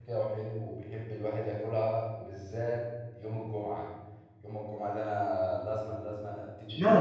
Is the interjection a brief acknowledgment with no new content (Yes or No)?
No